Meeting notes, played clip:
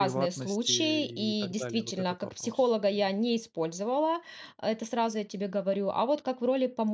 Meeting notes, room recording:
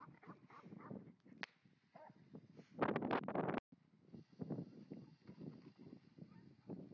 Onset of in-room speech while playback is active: none

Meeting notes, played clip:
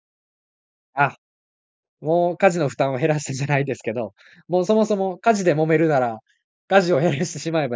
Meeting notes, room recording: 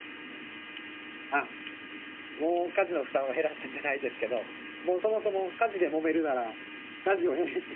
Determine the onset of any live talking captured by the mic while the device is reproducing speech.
none

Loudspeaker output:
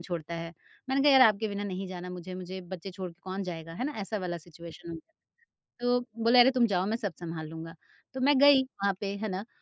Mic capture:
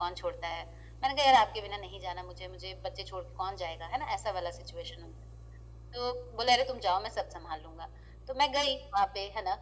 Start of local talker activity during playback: none

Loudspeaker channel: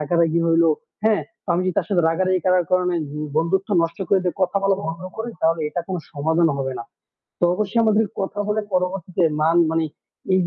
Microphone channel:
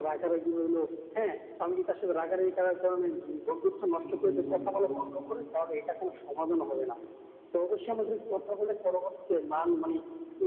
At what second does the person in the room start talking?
4.0 s

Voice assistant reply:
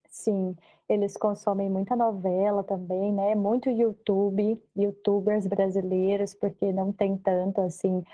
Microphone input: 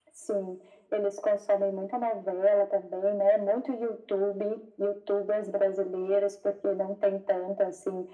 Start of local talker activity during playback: none

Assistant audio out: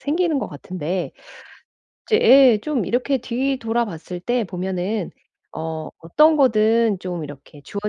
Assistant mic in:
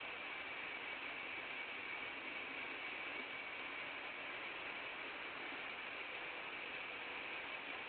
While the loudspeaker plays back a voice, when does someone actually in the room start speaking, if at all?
none

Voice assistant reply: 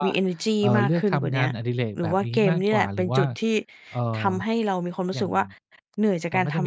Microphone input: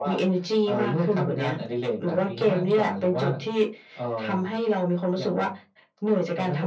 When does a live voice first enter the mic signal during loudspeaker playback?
none

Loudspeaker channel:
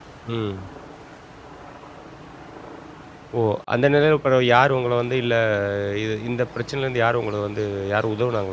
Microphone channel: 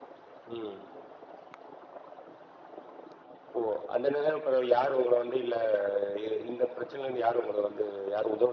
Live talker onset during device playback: none

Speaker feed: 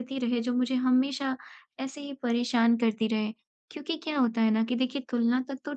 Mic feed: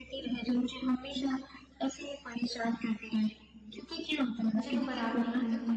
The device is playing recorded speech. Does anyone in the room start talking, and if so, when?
4.6 s

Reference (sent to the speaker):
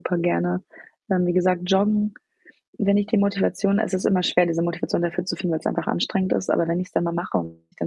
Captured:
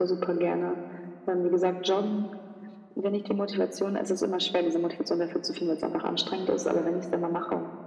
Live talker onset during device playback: none

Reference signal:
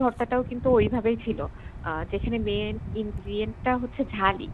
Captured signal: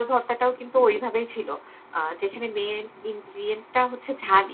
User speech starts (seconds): none

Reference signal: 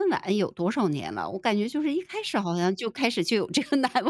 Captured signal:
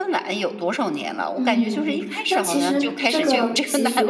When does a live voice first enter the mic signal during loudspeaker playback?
1.3 s

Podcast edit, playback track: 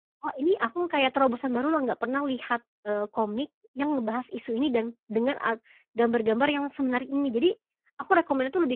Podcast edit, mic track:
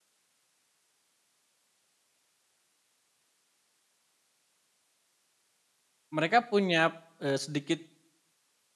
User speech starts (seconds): 6.1 s

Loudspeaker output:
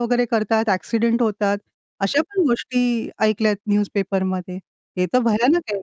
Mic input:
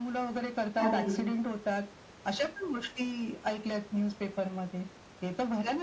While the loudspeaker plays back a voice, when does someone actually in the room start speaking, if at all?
0.8 s

